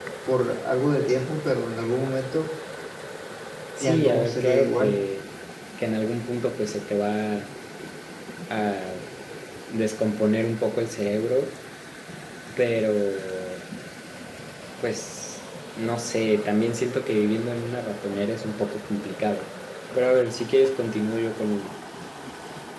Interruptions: present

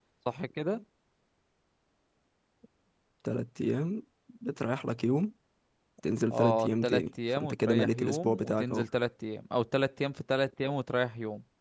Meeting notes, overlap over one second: present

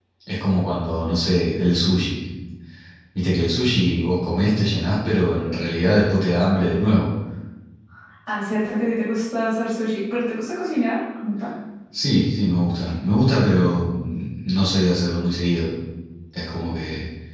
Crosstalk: none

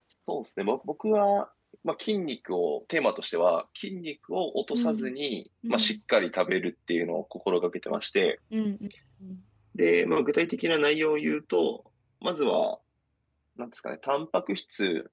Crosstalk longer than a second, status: none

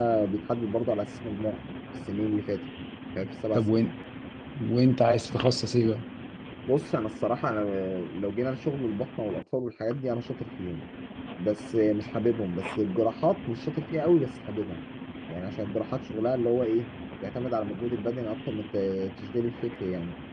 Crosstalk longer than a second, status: none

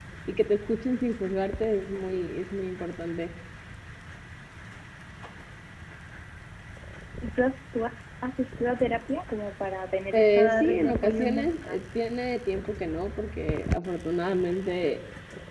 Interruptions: present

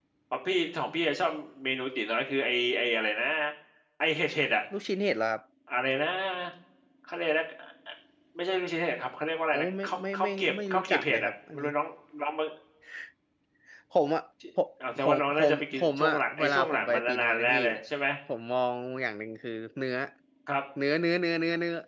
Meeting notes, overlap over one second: present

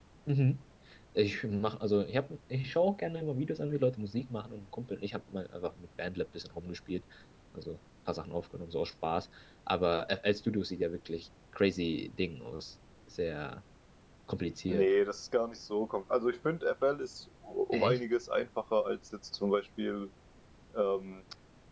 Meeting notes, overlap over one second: none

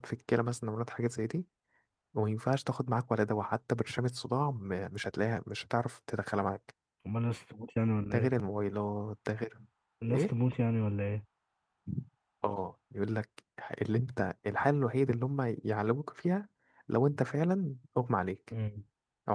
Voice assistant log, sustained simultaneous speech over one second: none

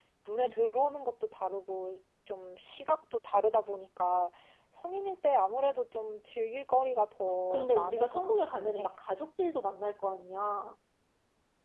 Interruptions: present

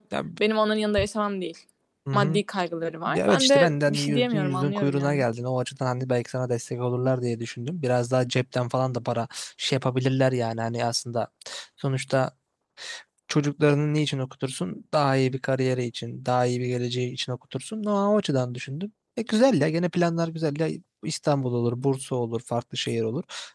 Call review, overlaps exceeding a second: present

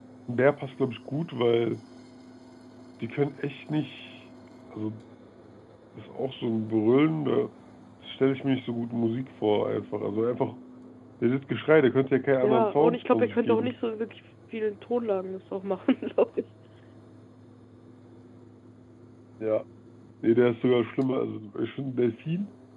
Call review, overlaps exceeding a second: present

